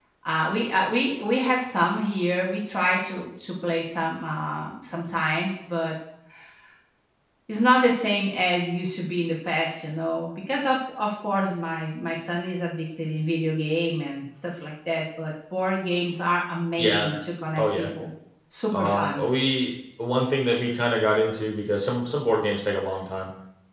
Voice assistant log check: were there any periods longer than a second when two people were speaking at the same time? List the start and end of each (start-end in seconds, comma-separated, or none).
none